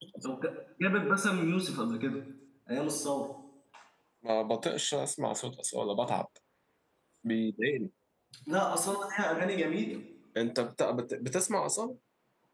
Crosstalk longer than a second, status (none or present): none